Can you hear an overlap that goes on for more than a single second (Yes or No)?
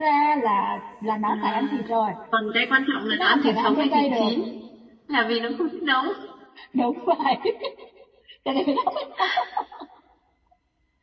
Yes